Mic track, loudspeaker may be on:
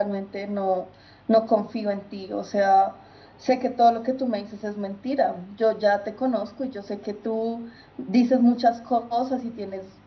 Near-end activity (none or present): present